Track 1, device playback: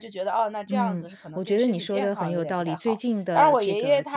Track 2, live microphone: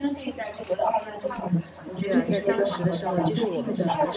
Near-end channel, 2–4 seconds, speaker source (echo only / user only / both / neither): both